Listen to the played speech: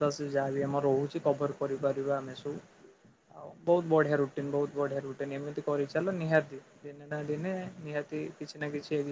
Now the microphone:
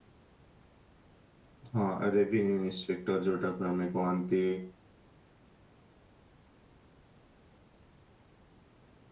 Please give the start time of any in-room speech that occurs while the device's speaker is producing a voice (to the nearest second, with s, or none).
2 s